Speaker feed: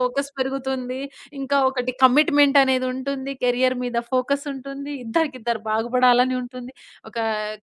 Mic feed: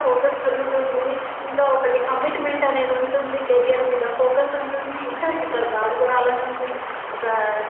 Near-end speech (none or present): none